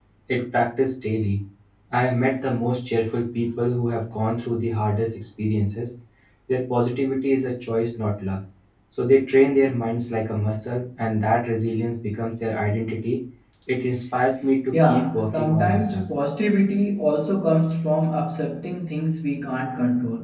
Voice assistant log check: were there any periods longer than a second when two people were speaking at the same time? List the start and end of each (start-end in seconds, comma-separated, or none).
14.7-16.1